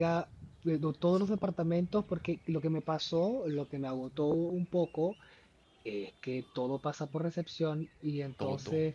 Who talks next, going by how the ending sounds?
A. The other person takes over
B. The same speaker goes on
B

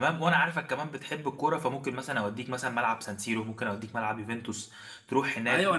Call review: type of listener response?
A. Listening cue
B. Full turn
B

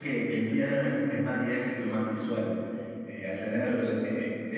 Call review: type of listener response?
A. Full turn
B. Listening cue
B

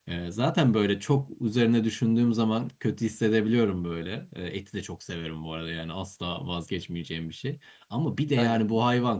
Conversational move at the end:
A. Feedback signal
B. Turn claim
A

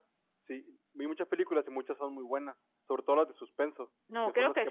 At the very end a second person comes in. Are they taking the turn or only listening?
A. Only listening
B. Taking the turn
B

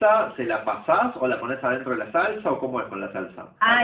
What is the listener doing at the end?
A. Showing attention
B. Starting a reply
B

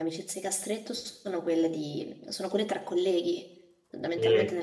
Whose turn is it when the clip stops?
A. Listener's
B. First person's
B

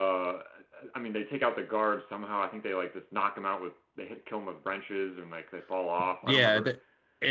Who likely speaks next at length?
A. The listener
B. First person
A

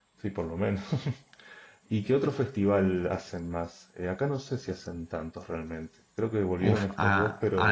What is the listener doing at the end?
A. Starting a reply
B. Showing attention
A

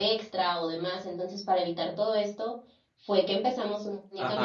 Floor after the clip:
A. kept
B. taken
B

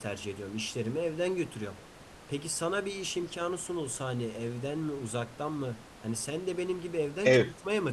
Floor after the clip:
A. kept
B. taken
B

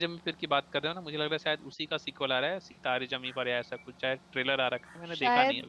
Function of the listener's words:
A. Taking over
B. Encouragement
A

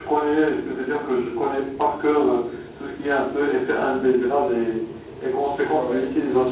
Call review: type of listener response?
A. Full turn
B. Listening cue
B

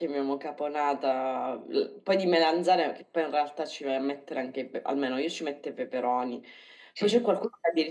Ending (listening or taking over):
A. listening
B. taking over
A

